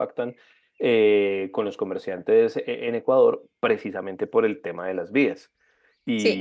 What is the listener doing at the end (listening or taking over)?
taking over